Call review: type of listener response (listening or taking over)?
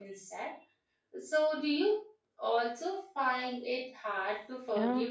taking over